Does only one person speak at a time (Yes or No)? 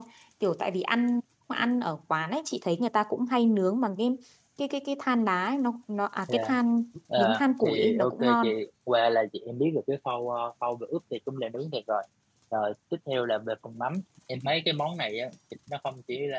No